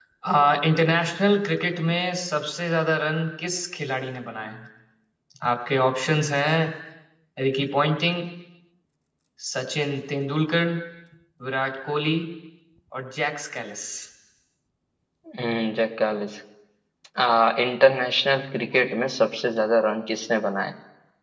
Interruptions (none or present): none